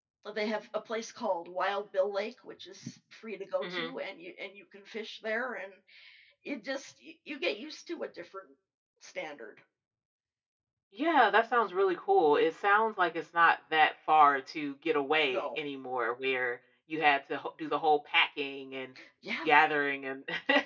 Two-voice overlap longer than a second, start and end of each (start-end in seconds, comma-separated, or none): none